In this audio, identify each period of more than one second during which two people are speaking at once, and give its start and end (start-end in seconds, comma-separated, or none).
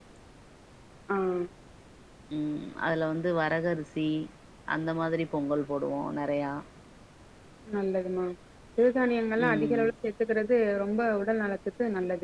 none